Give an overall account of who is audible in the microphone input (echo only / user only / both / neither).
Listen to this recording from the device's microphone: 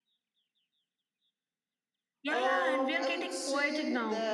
both